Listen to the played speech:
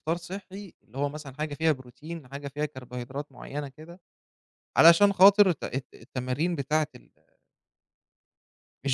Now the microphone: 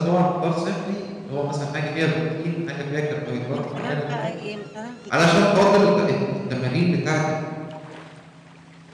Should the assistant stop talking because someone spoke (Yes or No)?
Yes